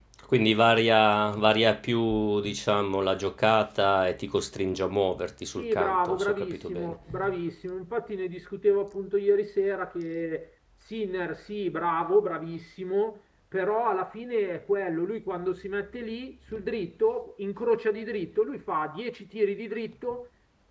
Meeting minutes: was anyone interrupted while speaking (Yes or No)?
Yes